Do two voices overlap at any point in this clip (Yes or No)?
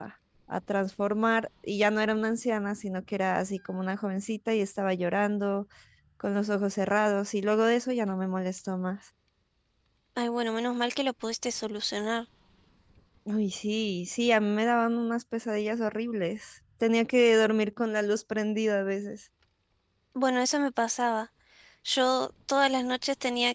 No